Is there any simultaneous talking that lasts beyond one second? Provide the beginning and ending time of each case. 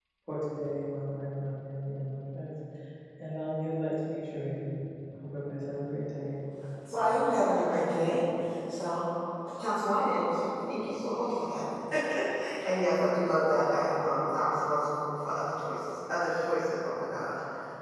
none

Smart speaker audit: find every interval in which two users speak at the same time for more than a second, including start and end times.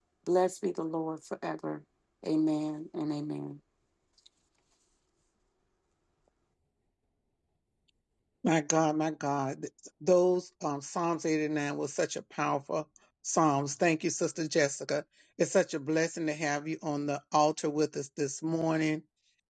none

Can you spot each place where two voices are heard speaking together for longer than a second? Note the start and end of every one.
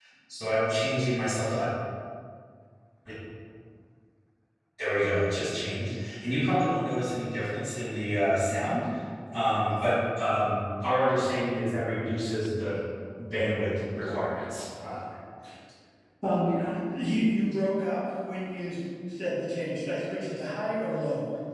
none

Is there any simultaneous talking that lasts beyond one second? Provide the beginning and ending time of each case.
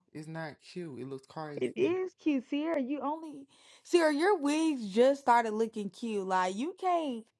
none

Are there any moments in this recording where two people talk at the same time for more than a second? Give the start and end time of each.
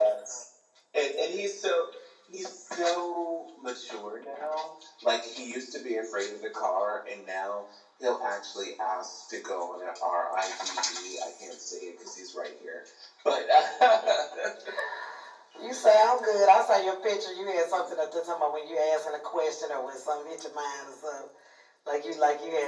none

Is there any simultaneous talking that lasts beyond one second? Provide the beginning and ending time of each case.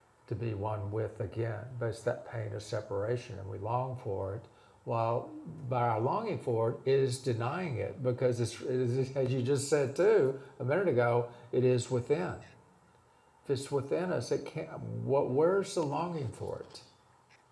none

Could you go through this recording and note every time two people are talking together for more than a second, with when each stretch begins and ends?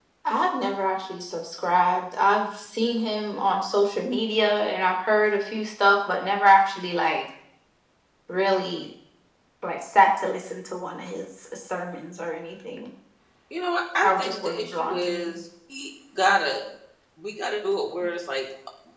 14.0-15.4

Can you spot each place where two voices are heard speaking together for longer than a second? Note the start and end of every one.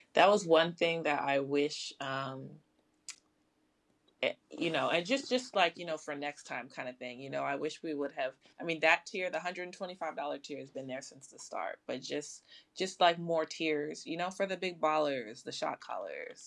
none

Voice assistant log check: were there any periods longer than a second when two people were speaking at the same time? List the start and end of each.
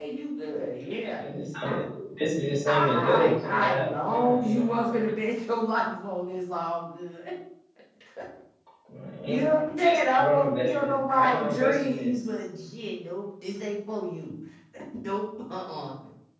2.7-5.1, 10.1-12.1

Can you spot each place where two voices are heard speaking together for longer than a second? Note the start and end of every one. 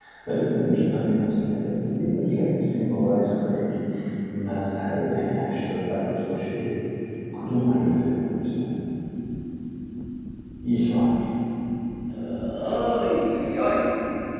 none

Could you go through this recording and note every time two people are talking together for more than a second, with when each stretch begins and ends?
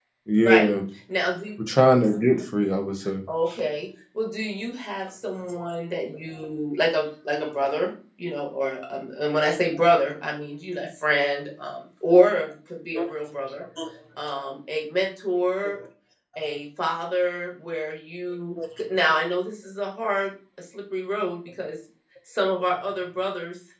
none

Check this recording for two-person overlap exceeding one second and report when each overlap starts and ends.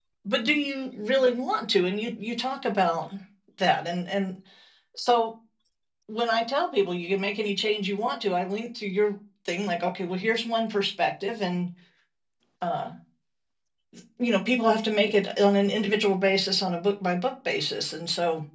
none

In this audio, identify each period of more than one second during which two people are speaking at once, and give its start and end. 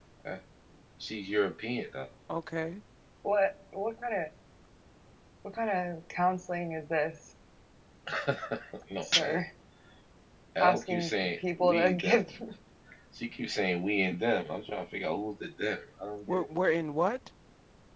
10.6-12.2

